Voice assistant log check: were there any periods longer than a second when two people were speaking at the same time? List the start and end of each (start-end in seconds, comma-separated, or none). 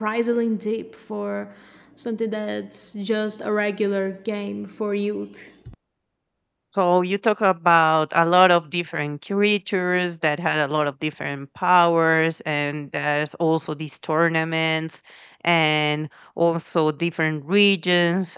none